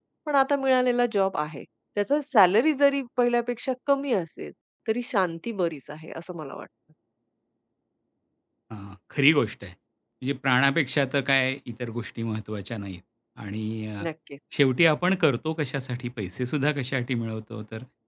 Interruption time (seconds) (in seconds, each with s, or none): none